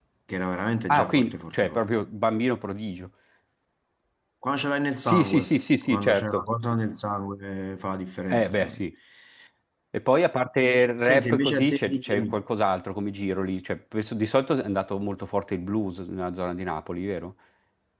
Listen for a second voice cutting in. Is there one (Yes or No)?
Yes